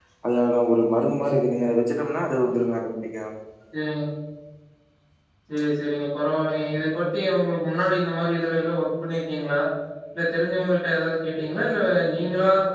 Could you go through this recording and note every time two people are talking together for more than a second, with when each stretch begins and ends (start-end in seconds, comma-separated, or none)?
none